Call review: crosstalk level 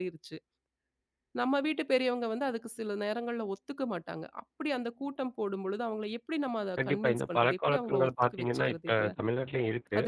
present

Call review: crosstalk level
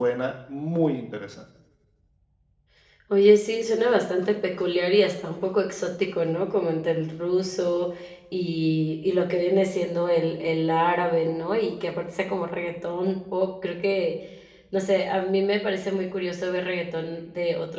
none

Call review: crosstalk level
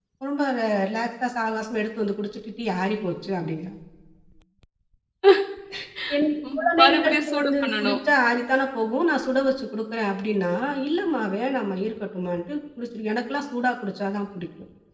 present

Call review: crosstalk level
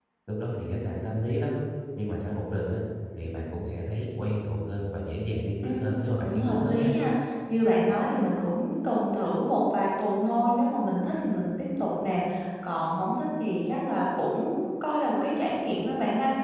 present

